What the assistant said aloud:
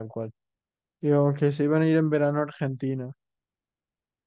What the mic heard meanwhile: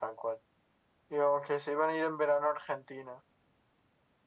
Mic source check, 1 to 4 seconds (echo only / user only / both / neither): echo only